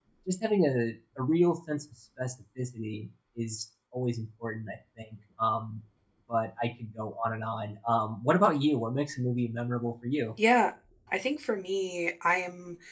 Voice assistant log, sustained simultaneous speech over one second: none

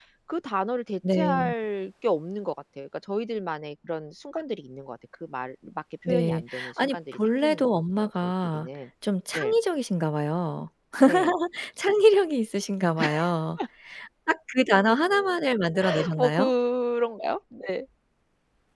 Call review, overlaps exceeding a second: present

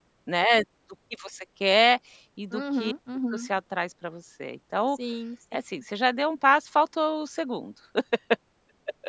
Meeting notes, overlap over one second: none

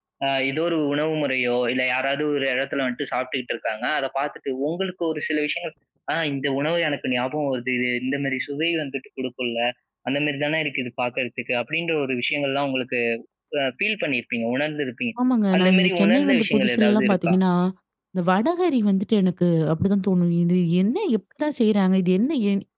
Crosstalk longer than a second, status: present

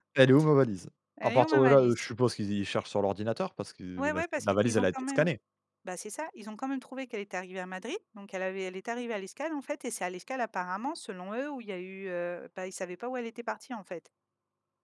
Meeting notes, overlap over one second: present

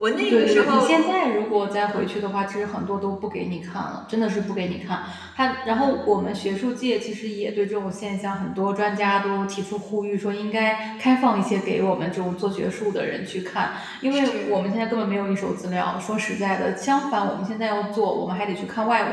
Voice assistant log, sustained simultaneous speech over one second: none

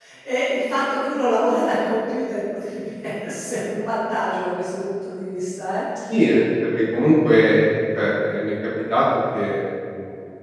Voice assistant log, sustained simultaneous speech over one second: none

